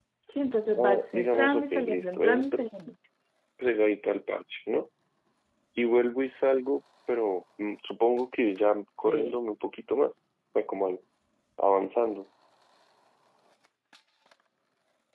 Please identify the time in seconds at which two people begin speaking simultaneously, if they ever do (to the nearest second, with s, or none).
1 s